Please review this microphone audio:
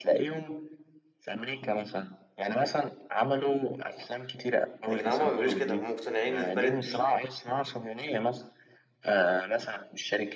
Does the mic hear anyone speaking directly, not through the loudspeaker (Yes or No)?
Yes